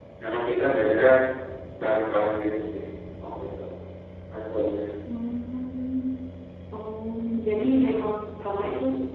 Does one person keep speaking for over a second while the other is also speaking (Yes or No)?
No